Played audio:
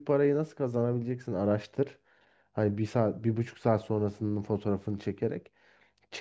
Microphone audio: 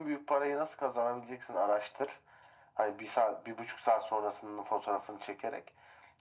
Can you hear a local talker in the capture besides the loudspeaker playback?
No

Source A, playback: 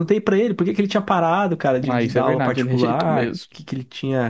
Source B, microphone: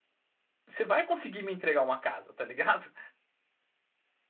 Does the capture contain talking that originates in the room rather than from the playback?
Yes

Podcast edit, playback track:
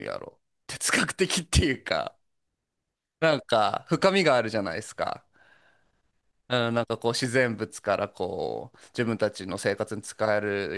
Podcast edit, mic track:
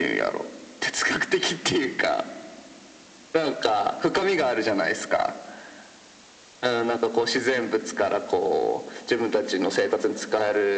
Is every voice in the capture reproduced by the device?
Yes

